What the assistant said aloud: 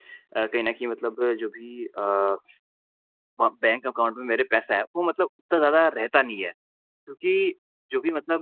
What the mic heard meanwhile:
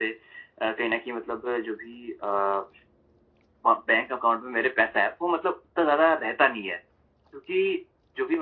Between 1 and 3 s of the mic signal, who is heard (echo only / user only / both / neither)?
echo only